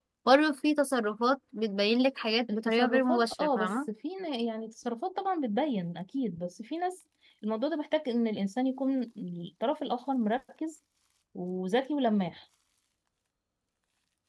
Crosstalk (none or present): present